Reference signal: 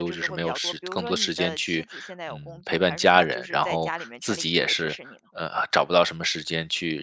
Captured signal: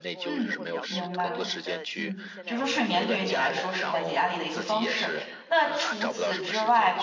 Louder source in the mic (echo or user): user